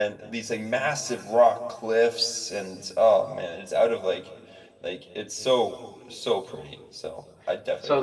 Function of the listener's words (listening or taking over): taking over